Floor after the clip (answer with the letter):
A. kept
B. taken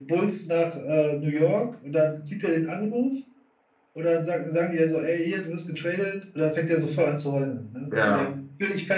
A